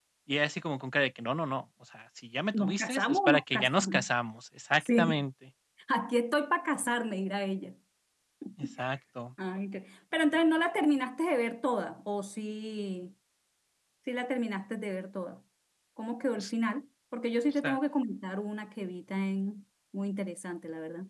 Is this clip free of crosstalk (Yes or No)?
No